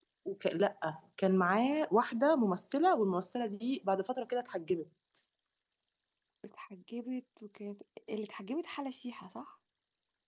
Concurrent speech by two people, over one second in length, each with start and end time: none

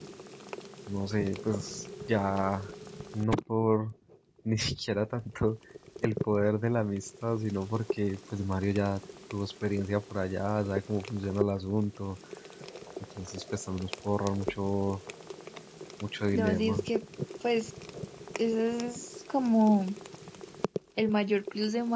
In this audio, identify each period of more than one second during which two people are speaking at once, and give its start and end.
none

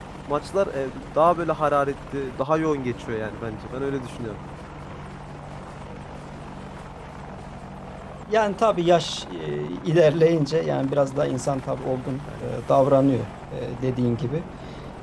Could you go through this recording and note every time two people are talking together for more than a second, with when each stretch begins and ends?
none

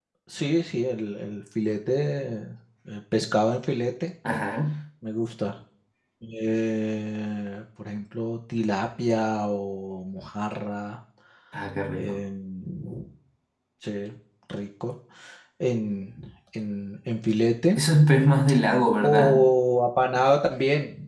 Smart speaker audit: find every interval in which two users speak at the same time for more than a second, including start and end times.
none

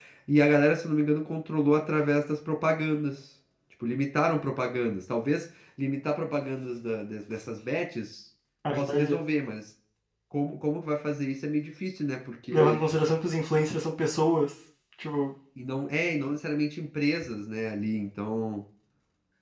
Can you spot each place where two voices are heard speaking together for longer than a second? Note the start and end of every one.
none

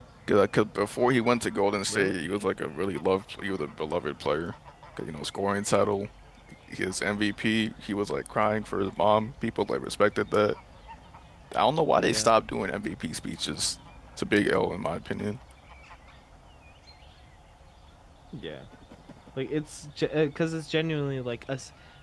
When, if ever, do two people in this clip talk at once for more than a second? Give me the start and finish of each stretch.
none

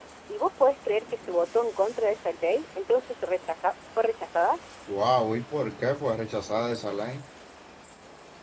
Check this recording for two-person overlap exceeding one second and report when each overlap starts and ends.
none

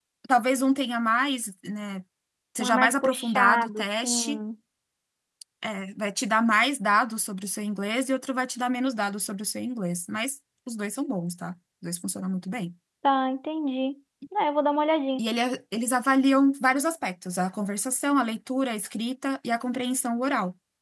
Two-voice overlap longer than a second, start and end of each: 2.6-4.4

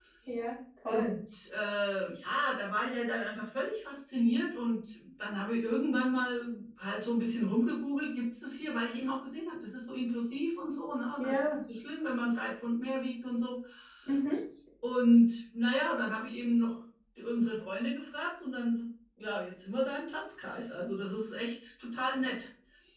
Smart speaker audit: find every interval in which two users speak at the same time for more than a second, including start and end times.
none

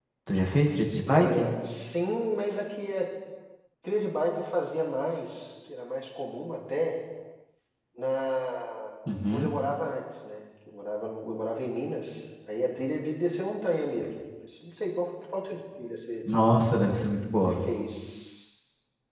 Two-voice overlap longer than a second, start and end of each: none

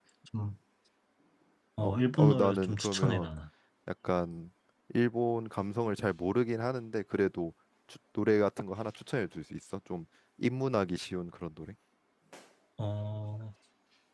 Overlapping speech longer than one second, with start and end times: 1.8-3.3

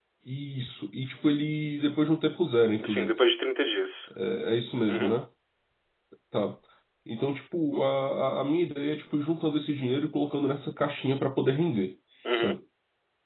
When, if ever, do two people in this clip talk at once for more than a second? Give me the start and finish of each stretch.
none

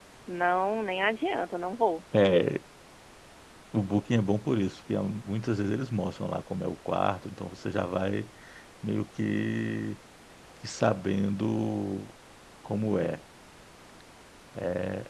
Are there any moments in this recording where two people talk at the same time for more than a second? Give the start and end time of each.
none

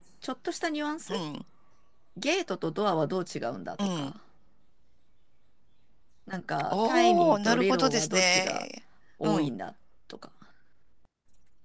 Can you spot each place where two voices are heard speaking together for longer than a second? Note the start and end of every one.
6.7-8.6

